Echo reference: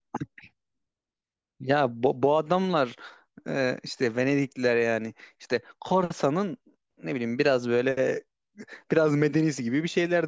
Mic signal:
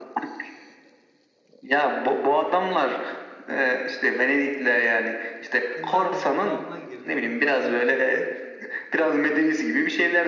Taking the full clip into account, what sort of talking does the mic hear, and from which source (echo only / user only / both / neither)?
both